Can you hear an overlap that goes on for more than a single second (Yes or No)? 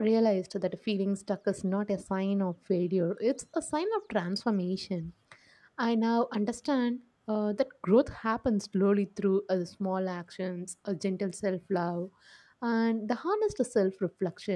No